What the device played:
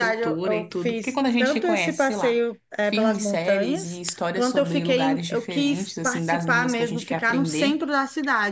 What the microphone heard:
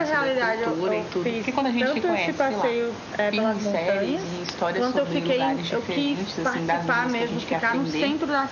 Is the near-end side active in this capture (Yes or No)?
No